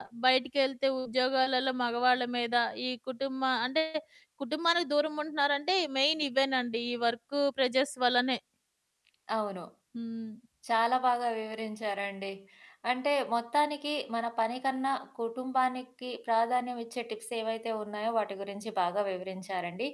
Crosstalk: none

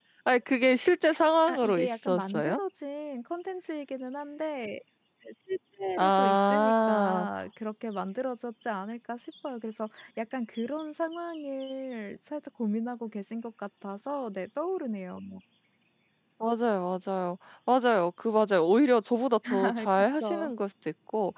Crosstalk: present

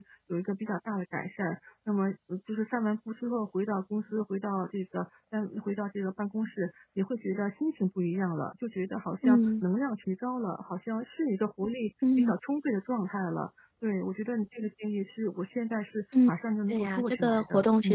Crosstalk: present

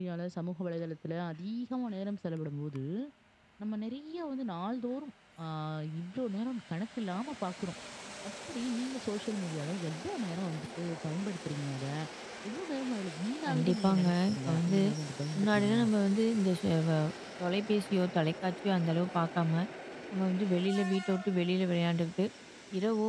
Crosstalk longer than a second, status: present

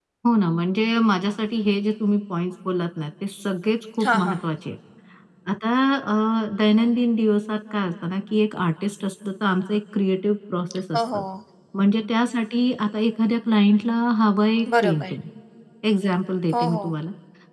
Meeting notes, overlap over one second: none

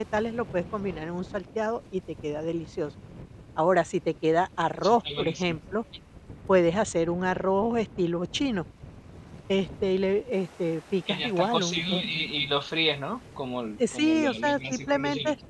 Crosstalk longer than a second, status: present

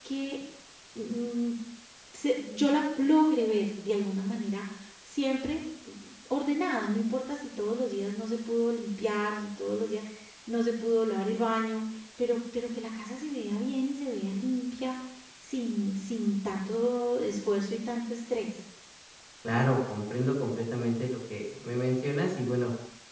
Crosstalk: none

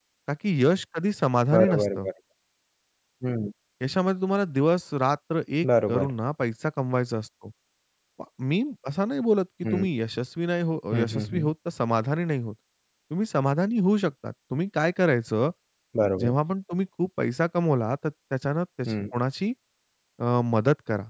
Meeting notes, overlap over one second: none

